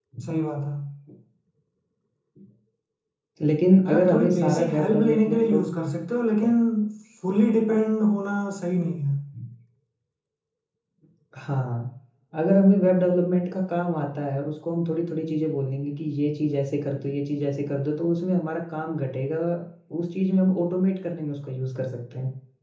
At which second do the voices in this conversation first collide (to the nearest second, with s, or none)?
4 s